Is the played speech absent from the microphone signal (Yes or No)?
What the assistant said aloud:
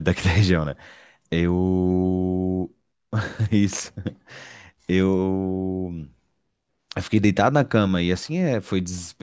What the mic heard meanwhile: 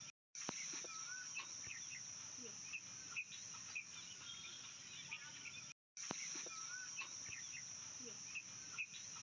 Yes